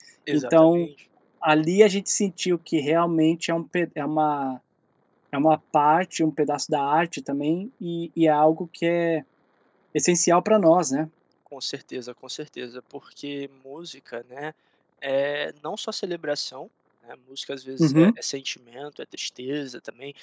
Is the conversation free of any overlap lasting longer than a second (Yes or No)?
Yes